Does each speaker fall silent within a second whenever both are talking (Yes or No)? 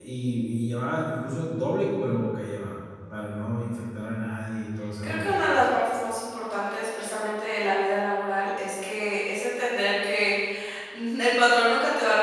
Yes